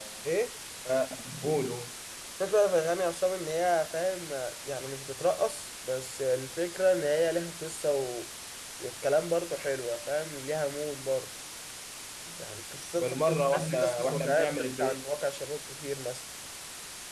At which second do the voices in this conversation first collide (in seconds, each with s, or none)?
13.0 s